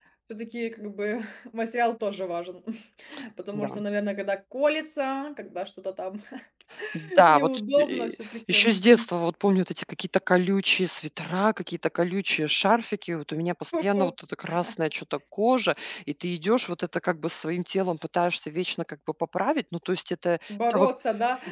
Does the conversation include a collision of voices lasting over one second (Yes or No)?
Yes